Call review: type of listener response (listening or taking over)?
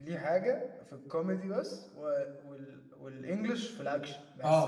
taking over